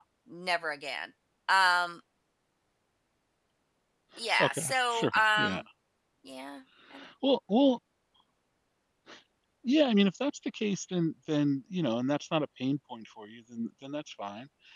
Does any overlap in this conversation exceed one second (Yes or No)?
Yes